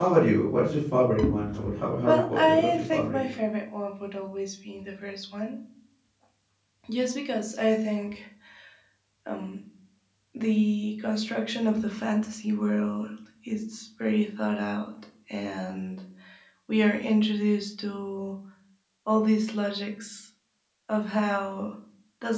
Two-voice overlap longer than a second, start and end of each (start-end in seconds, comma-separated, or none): 2.1-3.4